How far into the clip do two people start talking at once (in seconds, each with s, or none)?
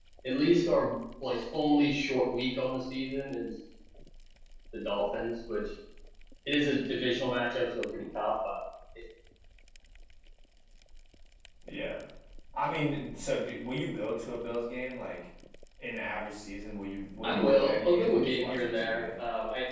17.2 s